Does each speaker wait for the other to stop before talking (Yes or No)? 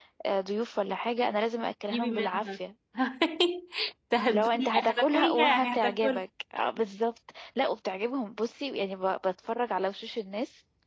No